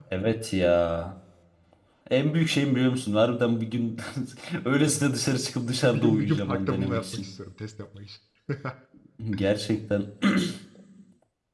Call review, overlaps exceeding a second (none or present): present